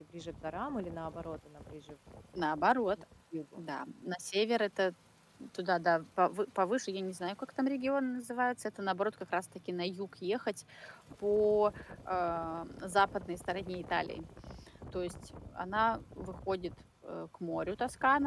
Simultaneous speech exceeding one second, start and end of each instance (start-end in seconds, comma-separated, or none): none